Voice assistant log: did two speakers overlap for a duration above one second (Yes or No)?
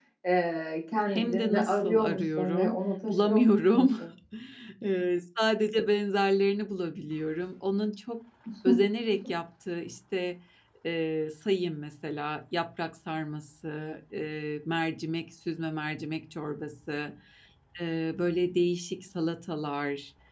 Yes